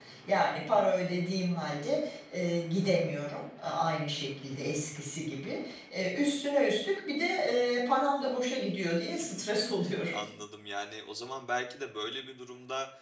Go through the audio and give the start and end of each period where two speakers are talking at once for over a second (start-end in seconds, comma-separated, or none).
none